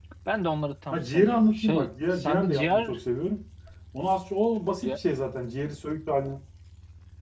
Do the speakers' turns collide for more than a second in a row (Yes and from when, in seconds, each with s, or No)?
Yes, from 0.9 s